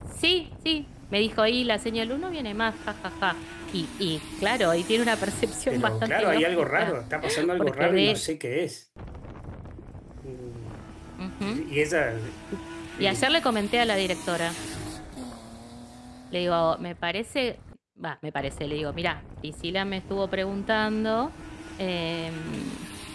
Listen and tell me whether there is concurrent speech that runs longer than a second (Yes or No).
Yes